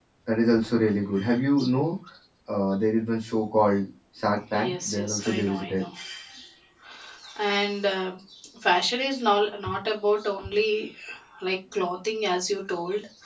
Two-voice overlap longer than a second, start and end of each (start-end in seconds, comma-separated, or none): 4.5-5.8